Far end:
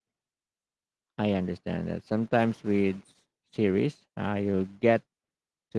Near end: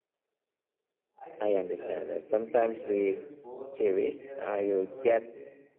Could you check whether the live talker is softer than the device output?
Yes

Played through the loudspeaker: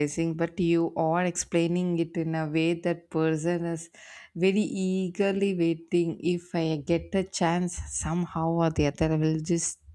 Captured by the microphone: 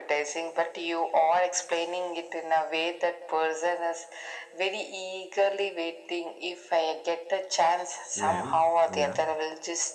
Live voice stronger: No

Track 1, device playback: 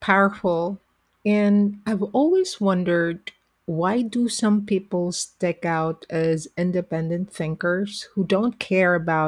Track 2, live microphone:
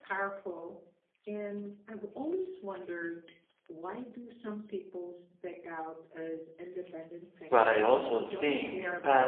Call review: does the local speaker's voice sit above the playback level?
Yes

